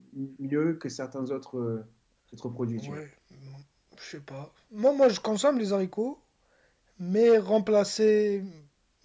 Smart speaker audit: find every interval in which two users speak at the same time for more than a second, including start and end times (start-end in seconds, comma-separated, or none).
none